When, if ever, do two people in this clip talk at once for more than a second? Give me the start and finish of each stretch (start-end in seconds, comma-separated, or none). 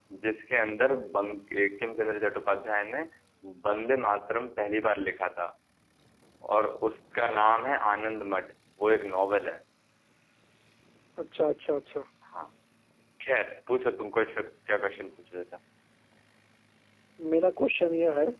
none